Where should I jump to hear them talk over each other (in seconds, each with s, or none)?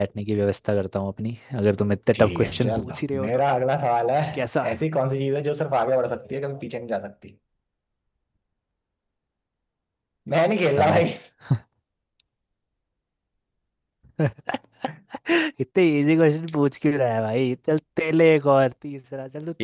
2.1 s